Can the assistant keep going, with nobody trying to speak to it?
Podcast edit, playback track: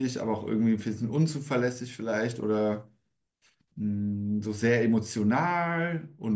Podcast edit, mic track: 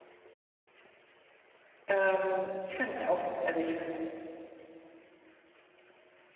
No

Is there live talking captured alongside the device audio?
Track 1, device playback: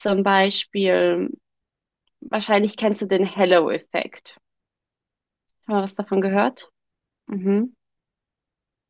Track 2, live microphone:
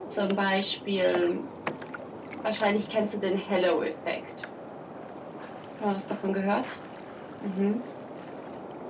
No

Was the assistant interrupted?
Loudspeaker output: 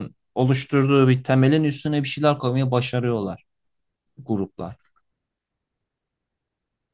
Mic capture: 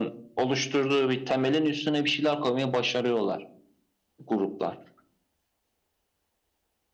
No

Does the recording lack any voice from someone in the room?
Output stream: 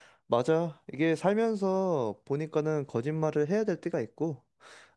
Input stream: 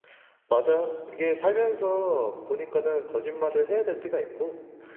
Yes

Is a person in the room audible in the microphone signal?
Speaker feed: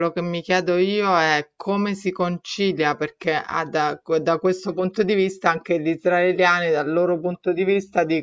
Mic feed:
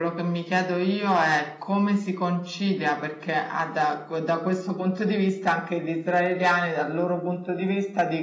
No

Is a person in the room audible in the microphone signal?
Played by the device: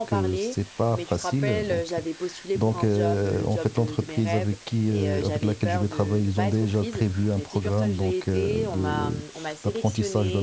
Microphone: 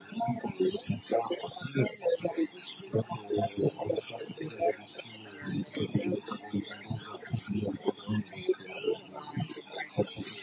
No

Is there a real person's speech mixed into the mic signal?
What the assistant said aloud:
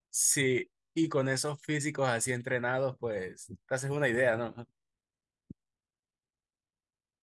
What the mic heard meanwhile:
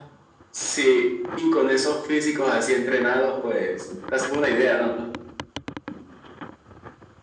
No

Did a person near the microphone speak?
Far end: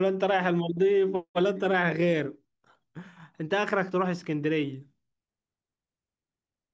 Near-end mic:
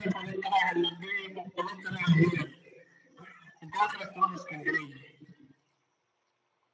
No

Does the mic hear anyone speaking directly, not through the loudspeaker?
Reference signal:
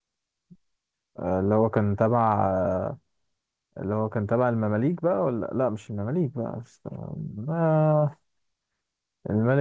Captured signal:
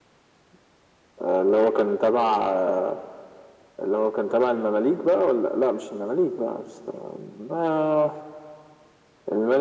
No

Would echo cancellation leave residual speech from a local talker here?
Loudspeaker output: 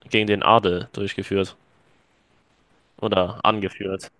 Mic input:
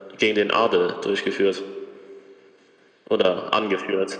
No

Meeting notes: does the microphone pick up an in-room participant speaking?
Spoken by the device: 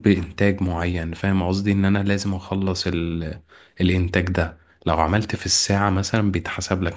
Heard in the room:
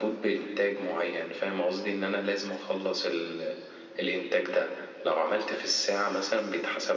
No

